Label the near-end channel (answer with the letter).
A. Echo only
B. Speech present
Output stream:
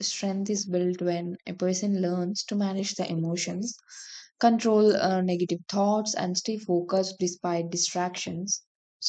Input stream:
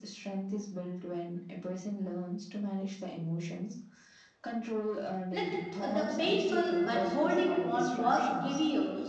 B